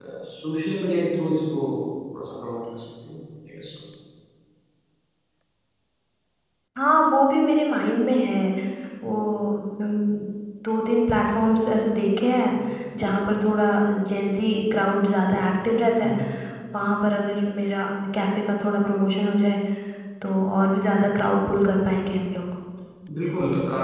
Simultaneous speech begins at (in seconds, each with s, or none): none